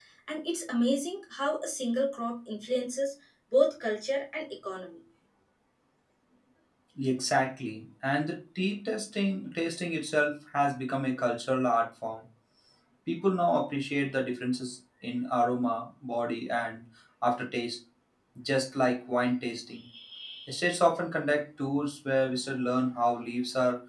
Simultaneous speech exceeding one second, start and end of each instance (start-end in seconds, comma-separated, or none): none